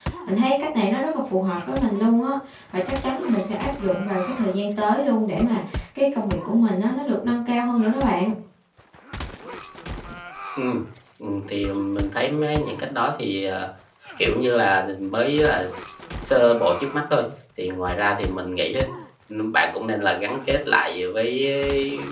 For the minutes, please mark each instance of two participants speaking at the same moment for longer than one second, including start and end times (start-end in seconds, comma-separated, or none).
none